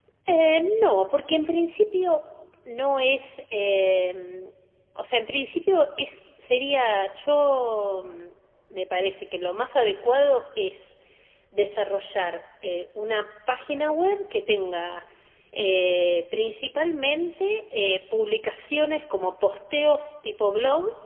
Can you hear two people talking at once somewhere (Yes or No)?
No